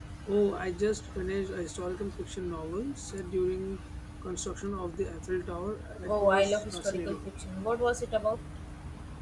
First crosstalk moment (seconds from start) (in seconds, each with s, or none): 6.0 s